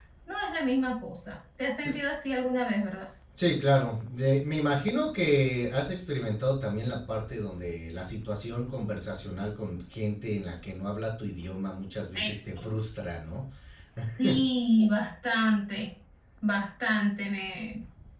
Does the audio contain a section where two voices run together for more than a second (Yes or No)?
No